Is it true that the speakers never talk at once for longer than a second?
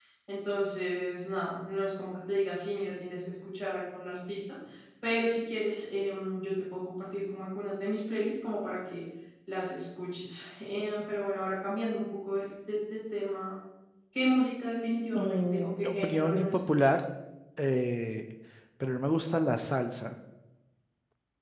No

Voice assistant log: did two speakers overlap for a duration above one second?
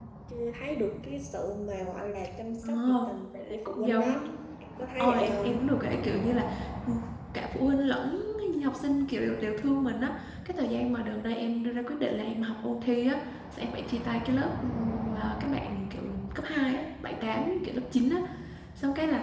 Yes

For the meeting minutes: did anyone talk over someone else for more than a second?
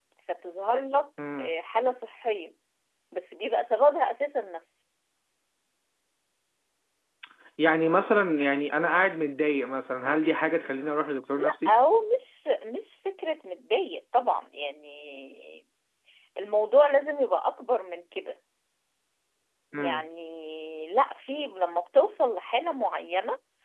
No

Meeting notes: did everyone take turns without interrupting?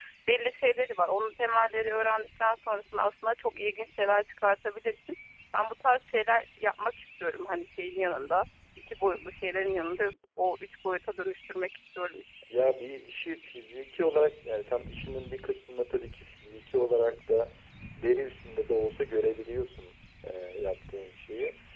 Yes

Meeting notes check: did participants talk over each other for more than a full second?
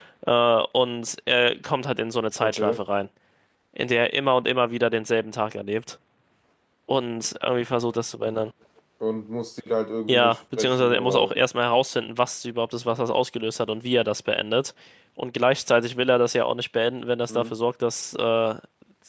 Yes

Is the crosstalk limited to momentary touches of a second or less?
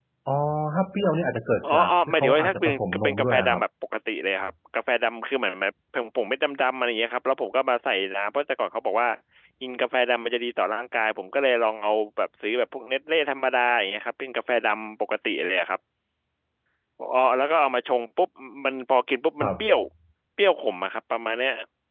No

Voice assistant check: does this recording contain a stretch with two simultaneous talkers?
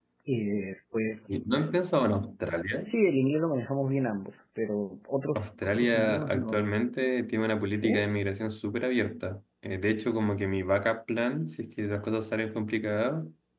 Yes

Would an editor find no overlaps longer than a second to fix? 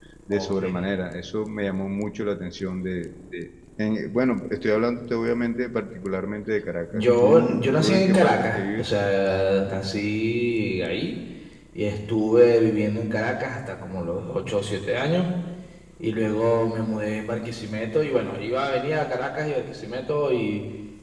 No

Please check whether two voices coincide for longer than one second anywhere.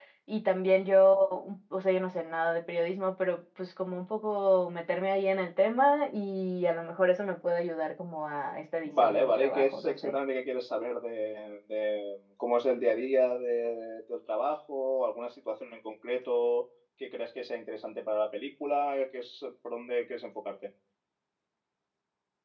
Yes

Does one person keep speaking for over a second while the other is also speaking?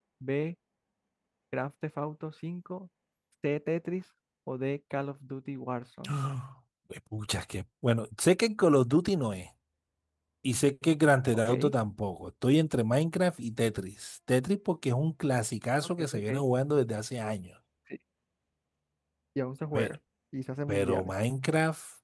No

